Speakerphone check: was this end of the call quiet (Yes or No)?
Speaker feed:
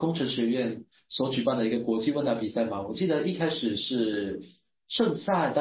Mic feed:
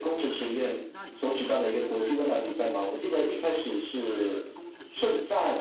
No